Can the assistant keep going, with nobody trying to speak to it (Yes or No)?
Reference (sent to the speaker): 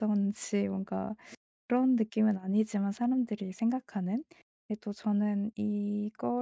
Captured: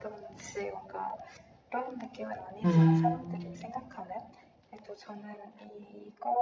No